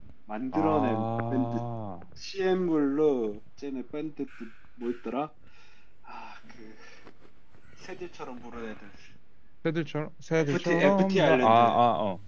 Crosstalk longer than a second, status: present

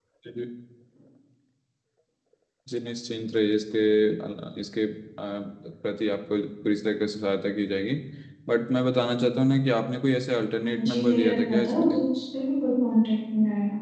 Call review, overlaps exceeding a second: present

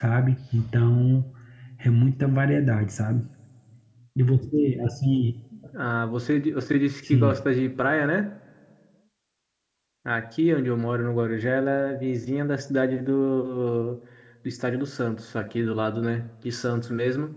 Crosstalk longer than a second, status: none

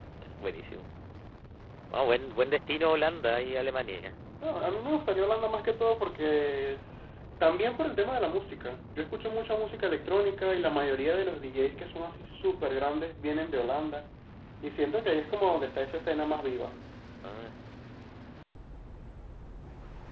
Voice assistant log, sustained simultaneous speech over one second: none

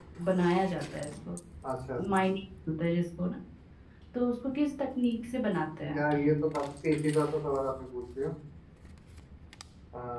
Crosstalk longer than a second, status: none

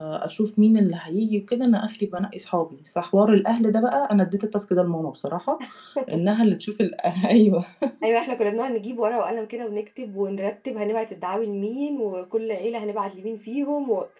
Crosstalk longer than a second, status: none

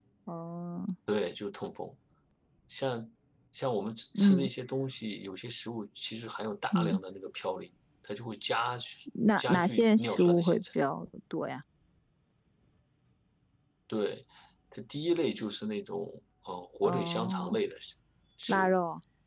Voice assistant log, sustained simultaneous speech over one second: present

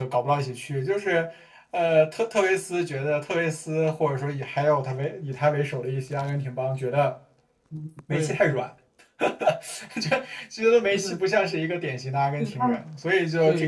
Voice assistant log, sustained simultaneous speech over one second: none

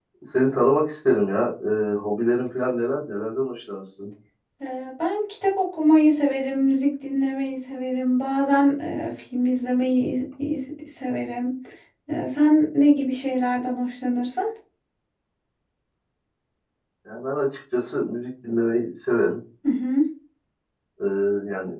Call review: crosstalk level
none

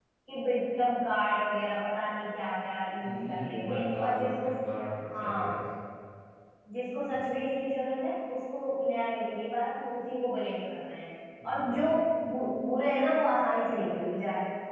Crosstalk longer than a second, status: present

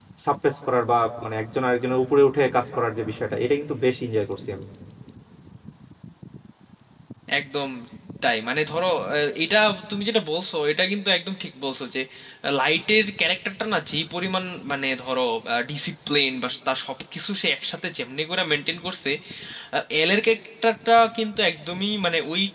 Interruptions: none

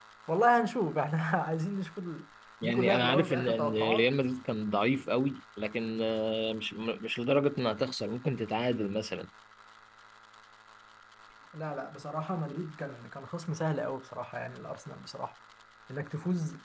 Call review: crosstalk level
present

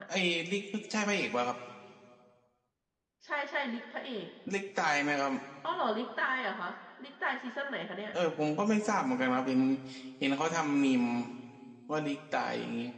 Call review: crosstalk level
none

